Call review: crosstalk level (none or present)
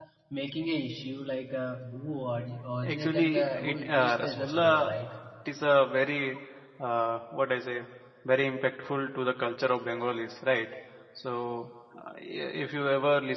present